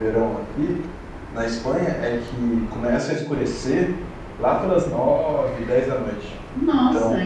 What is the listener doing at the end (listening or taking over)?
taking over